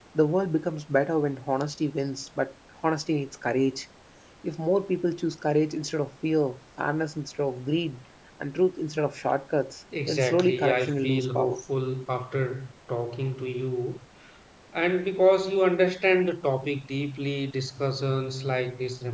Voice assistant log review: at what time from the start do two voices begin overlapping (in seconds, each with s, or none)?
9.9 s